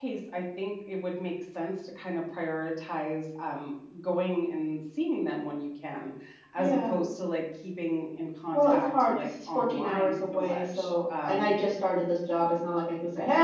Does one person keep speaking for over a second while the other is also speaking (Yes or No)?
Yes